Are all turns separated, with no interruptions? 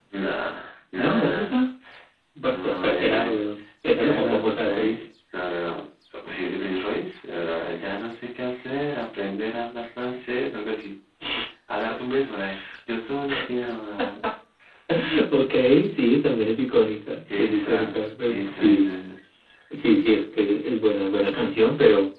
No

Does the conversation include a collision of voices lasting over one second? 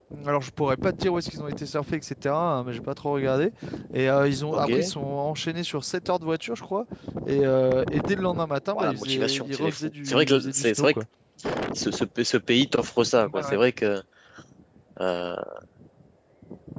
Yes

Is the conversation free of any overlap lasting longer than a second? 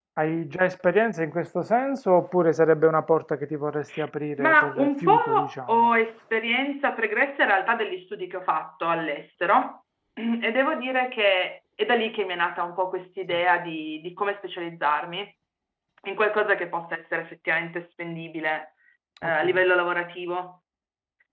No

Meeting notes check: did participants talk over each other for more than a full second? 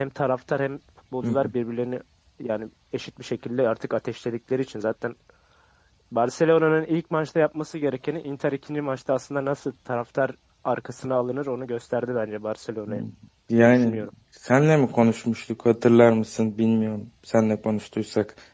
No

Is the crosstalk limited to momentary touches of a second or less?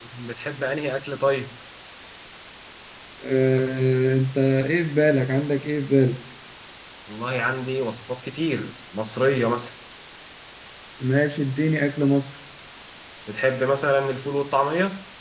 Yes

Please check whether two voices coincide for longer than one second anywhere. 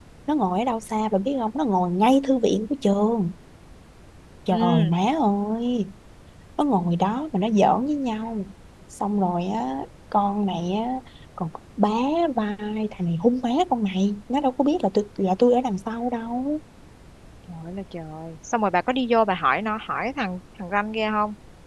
No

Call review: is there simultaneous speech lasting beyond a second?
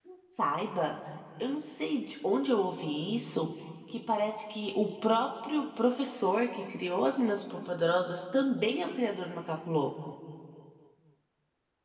No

